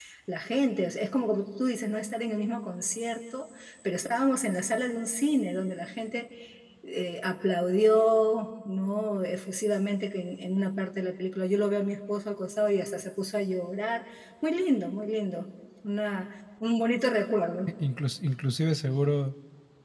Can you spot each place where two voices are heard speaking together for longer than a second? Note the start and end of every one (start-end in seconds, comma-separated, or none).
none